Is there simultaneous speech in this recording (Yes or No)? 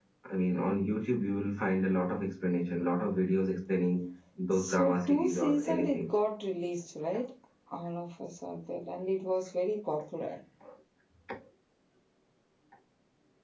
Yes